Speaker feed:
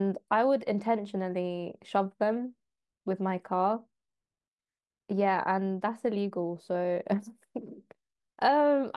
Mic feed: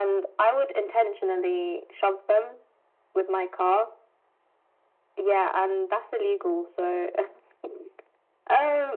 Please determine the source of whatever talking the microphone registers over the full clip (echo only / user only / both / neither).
echo only